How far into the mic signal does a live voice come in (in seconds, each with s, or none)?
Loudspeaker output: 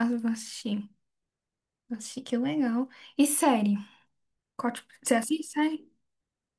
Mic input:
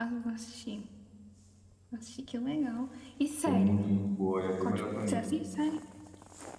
3.4 s